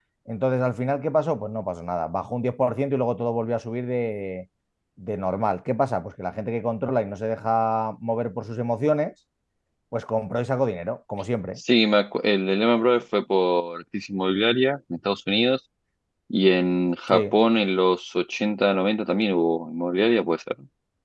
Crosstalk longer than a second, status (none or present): none